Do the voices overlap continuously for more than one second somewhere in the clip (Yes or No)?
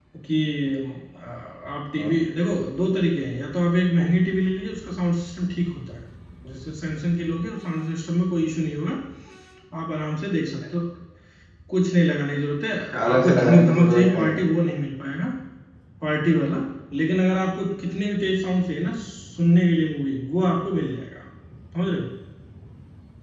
Yes